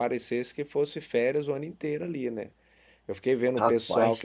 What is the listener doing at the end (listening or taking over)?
listening